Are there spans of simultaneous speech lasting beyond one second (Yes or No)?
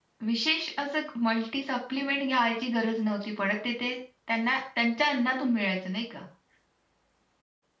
No